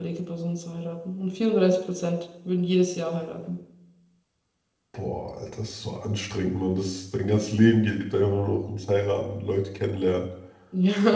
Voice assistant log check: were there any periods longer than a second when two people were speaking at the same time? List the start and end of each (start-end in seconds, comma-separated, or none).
none